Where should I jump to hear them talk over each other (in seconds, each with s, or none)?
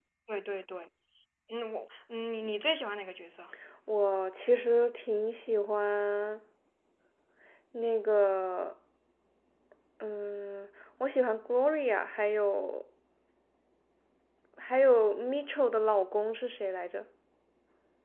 none